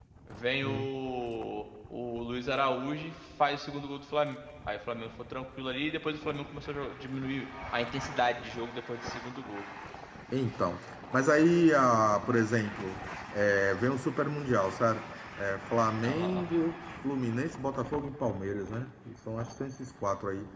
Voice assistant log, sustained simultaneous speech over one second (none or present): none